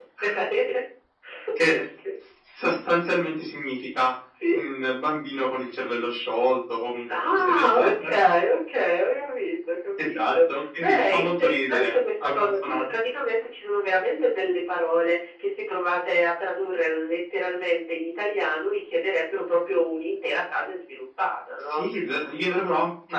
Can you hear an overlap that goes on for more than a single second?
Yes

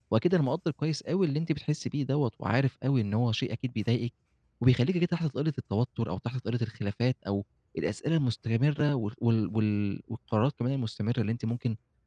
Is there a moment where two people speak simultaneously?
No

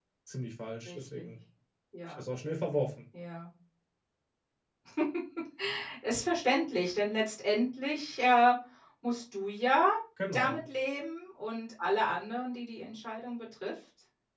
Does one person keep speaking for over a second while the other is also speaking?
No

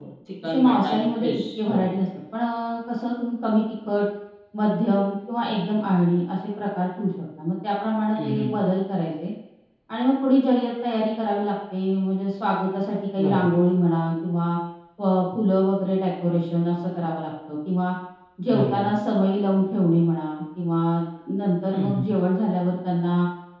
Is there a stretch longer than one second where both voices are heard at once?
Yes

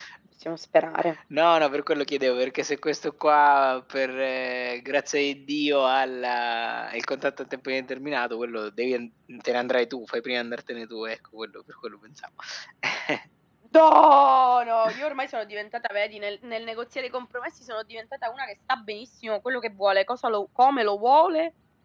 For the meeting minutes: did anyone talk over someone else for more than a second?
No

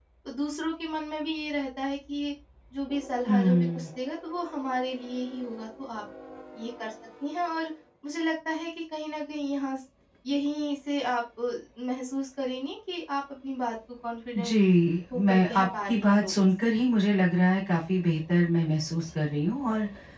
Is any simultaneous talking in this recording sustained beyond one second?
Yes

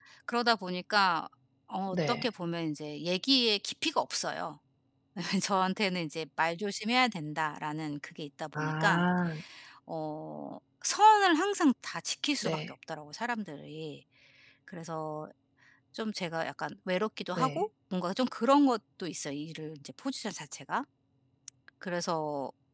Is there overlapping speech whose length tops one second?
No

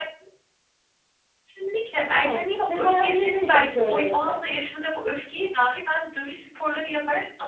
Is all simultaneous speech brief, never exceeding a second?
No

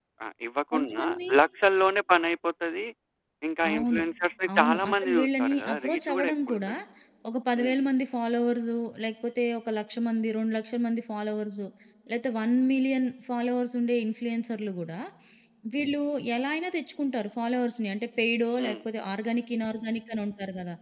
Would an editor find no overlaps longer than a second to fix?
No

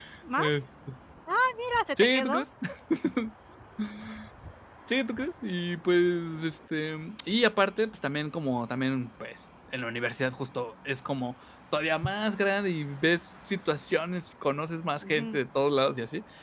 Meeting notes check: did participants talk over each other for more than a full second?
No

